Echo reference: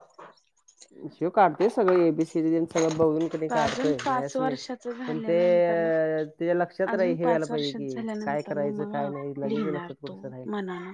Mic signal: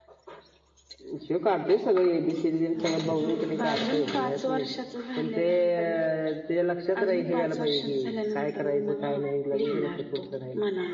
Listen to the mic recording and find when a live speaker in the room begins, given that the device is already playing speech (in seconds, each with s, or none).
2.7 s